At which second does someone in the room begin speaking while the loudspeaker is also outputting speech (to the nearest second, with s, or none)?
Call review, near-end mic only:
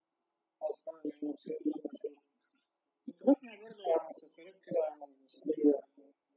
none